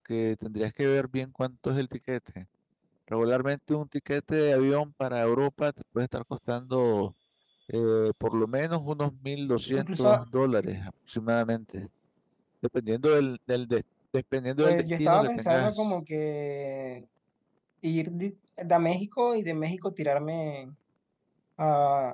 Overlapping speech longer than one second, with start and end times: 14.6-15.9

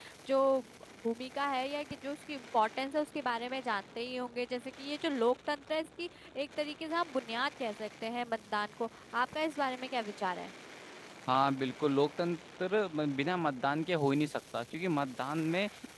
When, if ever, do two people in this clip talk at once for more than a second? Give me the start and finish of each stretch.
none

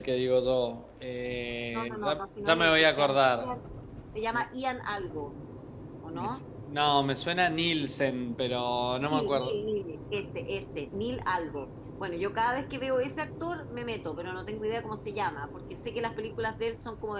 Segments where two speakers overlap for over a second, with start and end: 1.7-3.6

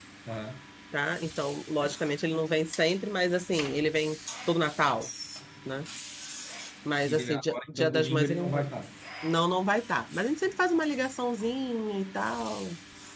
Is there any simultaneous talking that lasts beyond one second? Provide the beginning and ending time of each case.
7.0-8.6

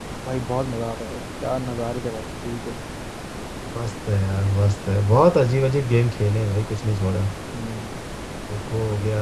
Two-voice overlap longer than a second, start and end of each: none

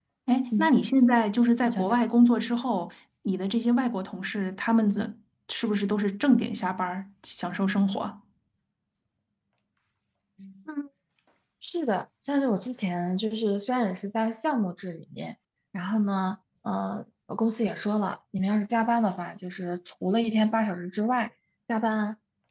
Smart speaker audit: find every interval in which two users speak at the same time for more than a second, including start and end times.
none

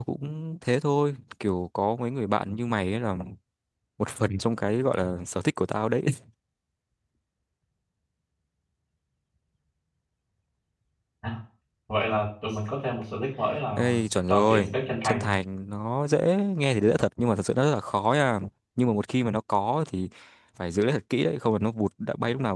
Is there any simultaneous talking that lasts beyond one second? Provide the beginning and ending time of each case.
13.8-15.3

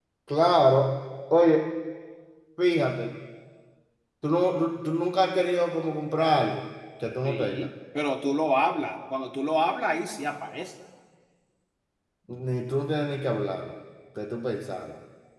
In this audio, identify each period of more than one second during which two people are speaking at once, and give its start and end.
none

